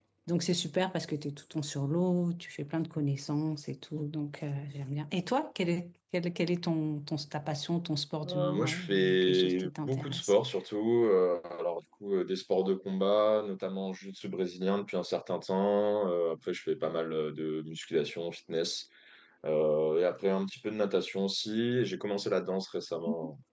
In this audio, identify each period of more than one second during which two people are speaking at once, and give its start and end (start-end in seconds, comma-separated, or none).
8.3-10.3